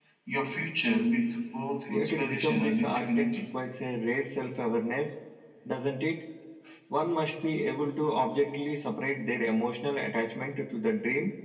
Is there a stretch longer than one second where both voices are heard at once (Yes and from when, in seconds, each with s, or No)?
Yes, from 1.9 s